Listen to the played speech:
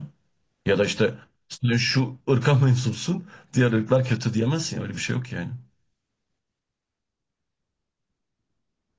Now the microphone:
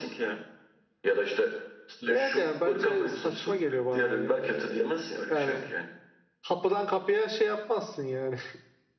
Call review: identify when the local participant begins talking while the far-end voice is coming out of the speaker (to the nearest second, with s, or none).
2 s